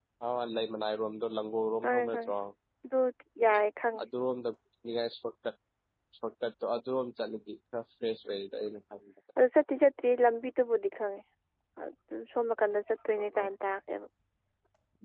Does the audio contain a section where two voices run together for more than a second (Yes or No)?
No